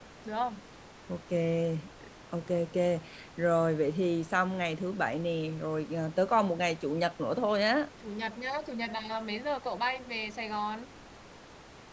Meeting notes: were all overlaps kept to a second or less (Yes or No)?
Yes